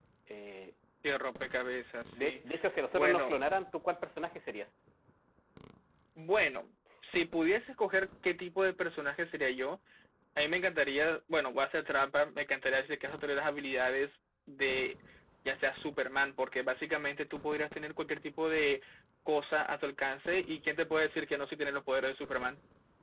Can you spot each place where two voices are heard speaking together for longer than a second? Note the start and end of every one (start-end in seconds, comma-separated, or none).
none